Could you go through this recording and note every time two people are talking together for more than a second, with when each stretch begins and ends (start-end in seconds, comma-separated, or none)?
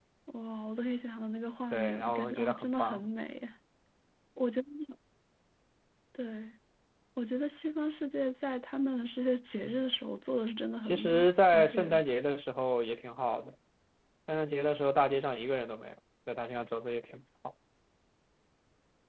1.7-3.0